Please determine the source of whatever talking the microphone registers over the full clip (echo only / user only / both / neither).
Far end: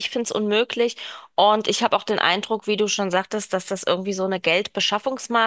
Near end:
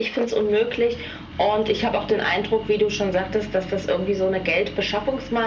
echo only